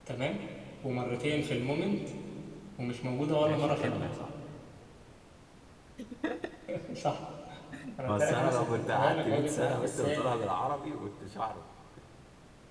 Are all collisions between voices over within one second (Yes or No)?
No